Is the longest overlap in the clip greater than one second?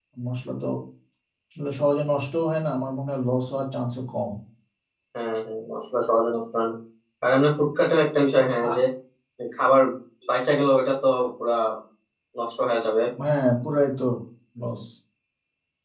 No

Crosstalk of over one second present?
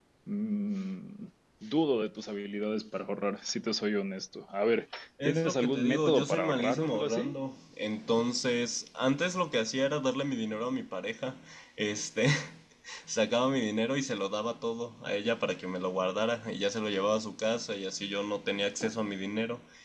Yes, from 5.2 s

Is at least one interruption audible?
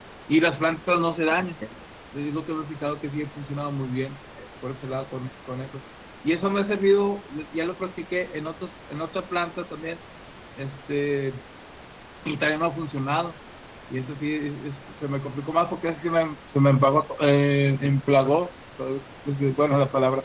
No

